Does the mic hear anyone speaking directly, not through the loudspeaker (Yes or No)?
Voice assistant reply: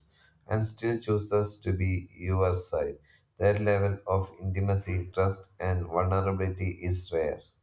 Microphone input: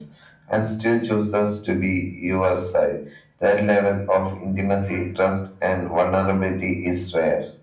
No